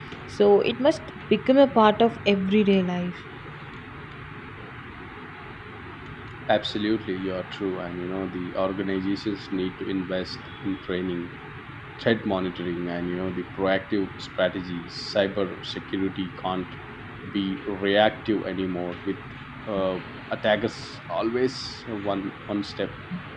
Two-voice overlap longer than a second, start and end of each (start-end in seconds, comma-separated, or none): none